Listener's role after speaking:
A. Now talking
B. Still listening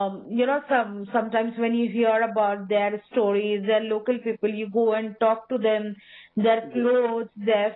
B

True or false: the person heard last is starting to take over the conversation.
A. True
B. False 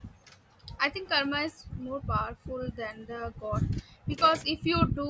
B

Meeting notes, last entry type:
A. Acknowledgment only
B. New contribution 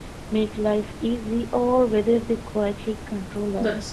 B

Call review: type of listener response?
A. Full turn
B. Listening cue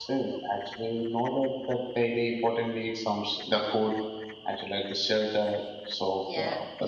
A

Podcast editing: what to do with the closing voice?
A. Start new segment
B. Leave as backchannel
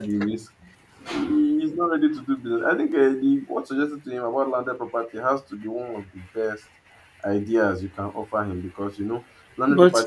B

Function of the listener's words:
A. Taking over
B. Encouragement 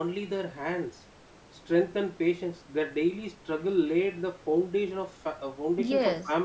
B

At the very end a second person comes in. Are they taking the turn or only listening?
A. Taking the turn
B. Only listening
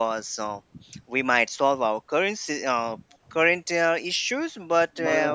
B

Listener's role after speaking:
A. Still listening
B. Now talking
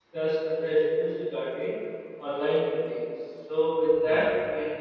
A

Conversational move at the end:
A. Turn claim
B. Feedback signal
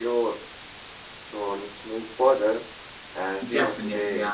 A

